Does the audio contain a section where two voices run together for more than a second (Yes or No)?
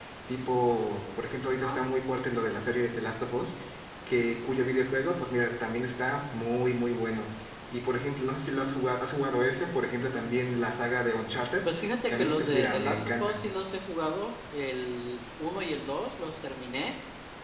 Yes